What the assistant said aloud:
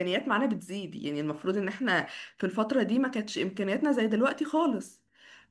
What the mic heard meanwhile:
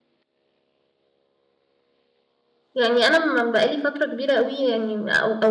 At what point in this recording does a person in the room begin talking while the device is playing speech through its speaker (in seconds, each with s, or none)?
2.7 s